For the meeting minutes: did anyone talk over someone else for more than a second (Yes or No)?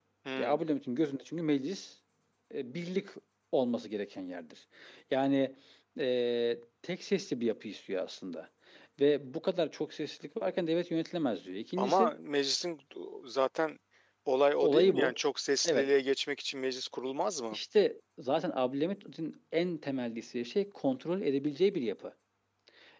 No